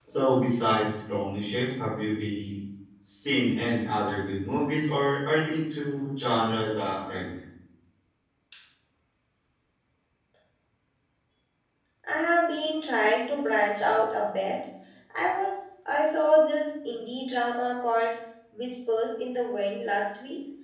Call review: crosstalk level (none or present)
none